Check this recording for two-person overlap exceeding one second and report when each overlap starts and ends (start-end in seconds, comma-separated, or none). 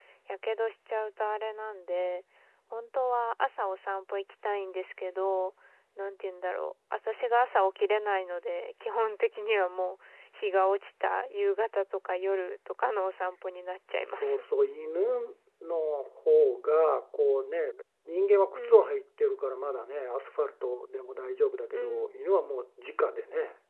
none